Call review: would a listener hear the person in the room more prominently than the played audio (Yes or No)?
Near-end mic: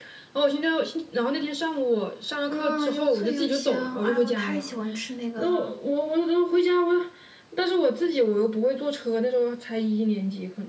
No